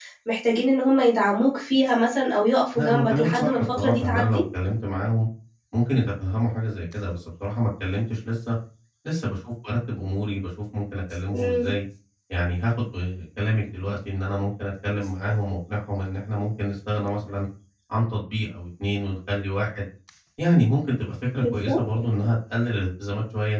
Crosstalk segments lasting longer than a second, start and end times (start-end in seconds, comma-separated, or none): 2.7-4.4